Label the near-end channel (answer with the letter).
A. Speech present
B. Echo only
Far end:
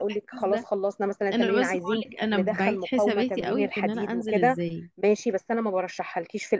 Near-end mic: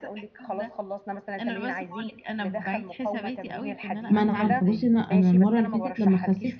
A